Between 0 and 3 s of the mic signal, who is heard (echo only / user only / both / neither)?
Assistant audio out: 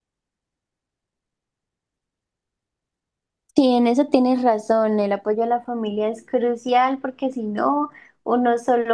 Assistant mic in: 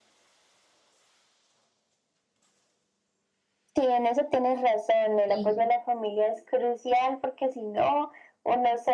neither